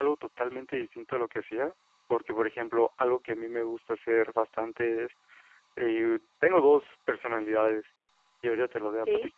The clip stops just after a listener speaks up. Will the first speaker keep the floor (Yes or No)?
Yes